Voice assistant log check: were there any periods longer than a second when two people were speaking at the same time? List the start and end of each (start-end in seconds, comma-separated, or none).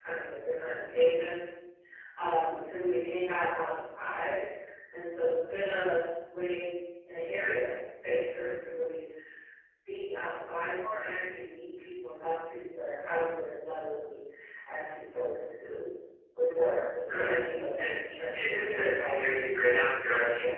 17.8-19.2